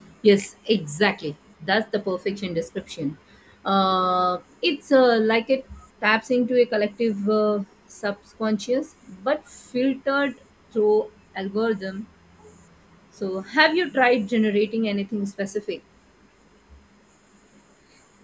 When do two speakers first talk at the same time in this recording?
none

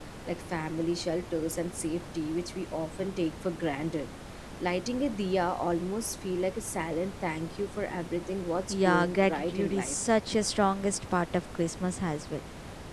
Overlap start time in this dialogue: 9 s

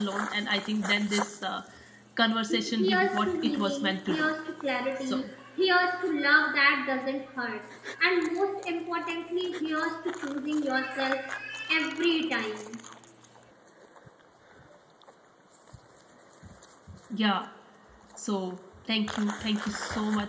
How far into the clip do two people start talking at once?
2 s

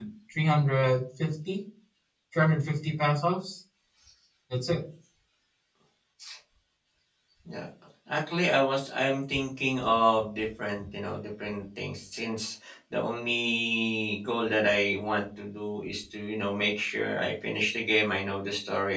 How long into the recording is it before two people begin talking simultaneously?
none

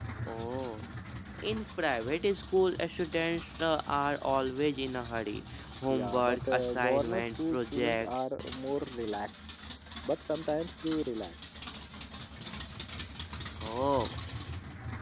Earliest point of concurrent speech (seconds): 6 s

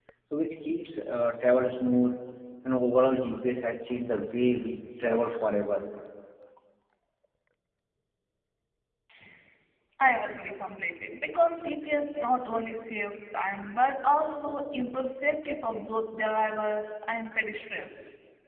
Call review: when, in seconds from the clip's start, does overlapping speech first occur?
none

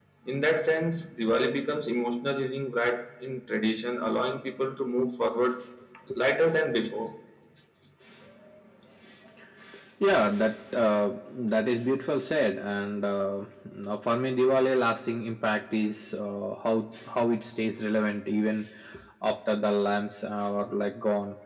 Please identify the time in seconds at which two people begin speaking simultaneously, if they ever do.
none

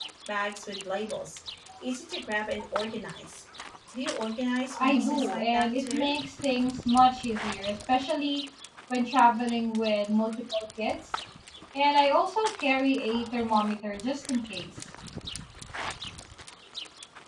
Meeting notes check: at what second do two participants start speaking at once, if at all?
5 s

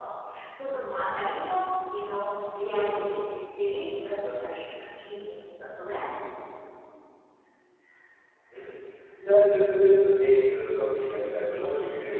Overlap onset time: none

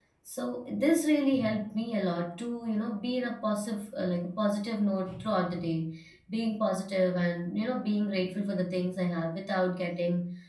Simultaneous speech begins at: none

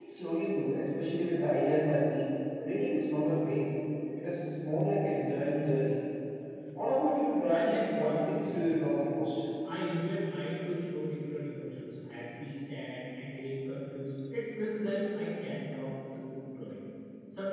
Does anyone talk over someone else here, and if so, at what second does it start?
7 s

